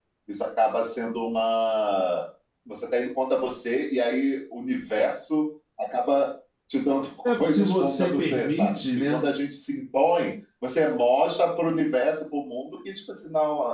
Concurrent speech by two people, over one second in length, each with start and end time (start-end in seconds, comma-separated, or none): 7.2-9.3